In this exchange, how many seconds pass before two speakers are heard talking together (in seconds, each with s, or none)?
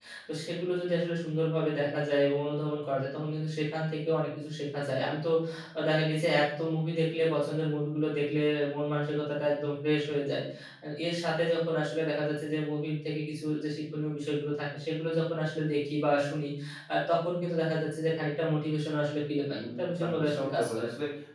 19.5 s